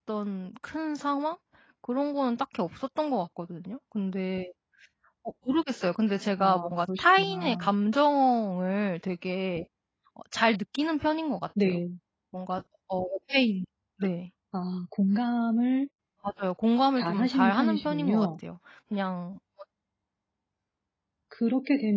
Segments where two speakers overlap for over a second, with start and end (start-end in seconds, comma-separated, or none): 6.4-7.7, 16.9-18.3